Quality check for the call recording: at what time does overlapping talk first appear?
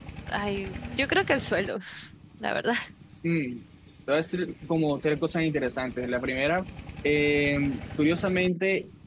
none

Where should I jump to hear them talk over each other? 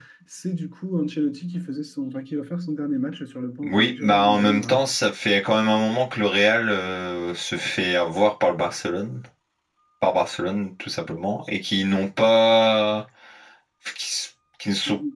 3.6 s

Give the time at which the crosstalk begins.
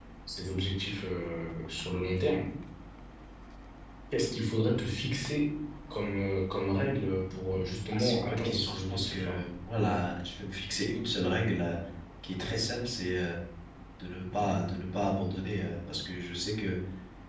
7.9 s

